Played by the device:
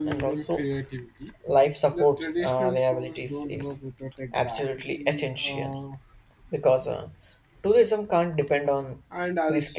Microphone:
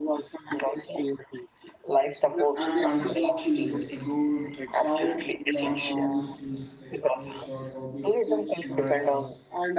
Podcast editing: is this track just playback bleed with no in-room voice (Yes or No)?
No